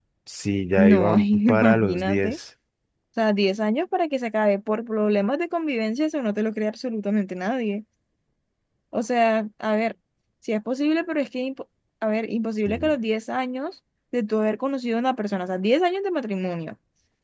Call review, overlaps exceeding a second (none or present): present